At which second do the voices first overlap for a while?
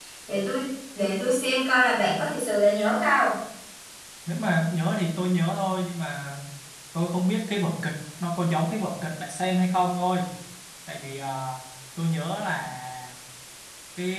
none

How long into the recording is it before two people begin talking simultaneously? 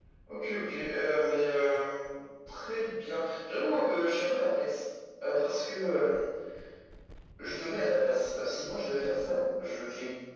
none

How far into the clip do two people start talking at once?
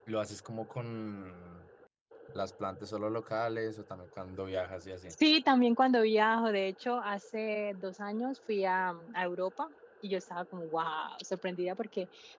none

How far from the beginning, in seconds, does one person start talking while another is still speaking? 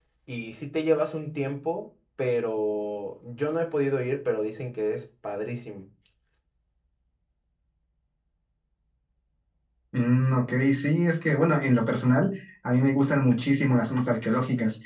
none

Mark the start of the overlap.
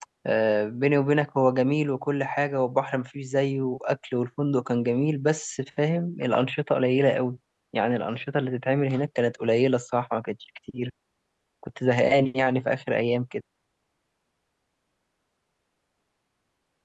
none

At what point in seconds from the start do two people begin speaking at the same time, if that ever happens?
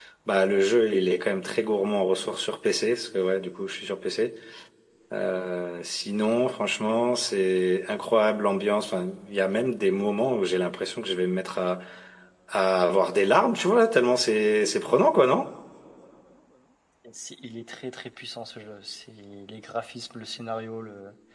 none

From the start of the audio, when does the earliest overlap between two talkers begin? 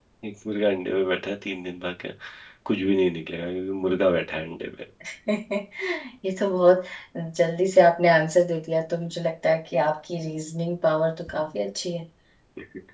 none

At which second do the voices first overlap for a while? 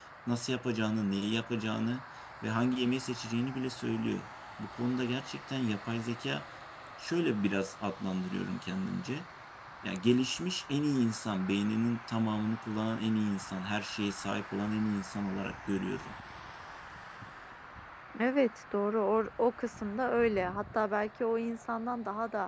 none

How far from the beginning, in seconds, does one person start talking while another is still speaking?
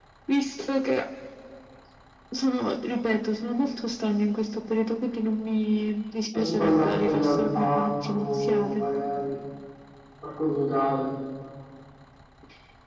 6.3 s

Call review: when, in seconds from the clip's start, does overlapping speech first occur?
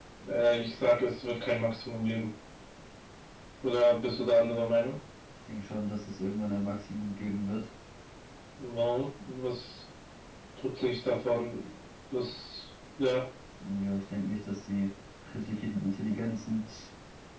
none

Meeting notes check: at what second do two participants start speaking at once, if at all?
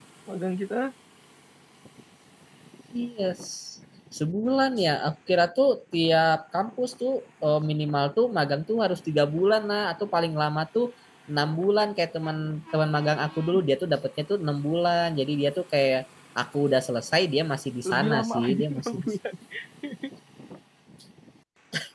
17.8 s

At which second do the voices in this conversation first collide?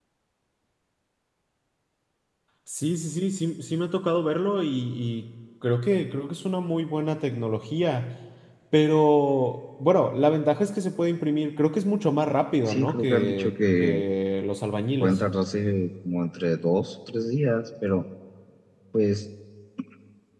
12.7 s

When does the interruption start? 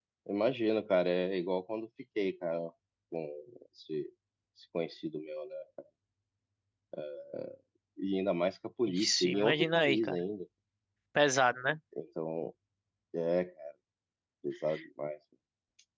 8.9 s

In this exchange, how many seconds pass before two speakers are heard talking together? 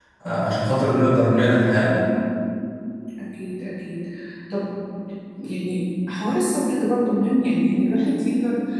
none

